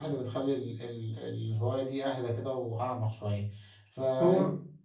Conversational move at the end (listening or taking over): listening